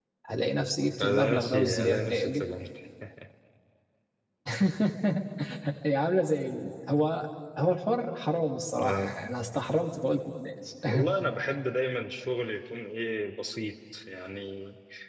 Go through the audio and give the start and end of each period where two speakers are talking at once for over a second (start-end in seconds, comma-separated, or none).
1.0-2.4